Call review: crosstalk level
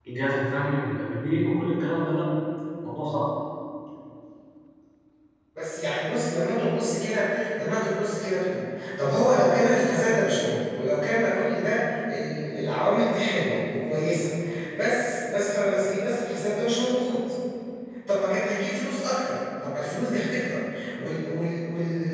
none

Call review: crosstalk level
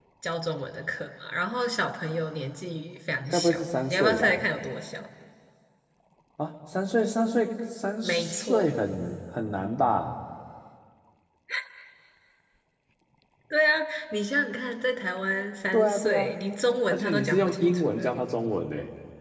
present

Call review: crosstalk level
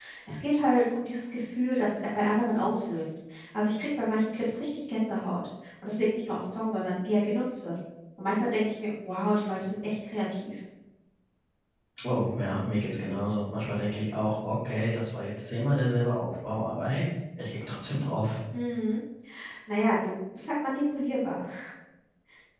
none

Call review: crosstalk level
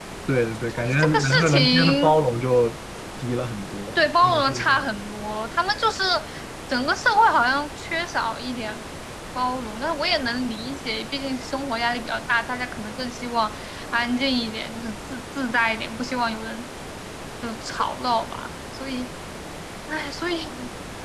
present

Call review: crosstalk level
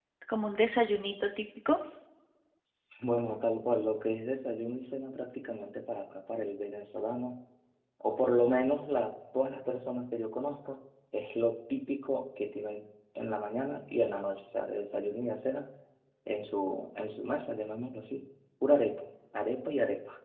none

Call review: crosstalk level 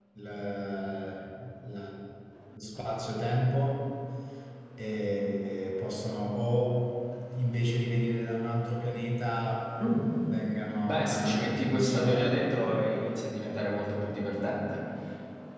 present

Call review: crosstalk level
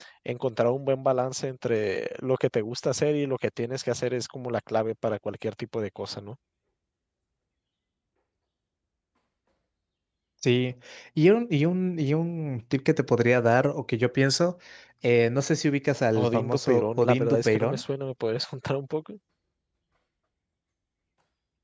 present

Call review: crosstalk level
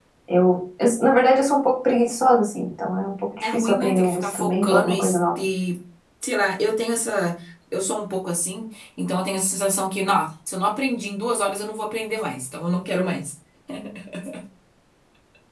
present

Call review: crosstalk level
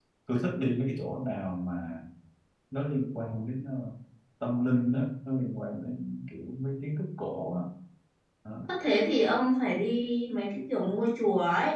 none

